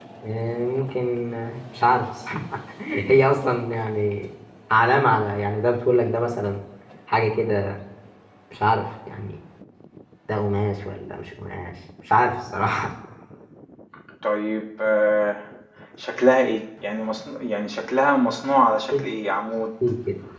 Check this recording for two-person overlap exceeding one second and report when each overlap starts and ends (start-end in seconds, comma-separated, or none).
none